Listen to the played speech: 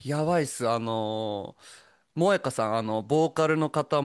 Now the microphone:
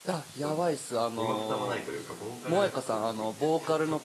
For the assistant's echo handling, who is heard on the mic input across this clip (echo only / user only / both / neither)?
both